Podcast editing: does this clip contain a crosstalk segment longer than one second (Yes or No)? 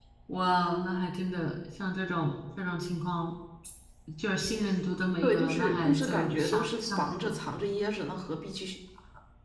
Yes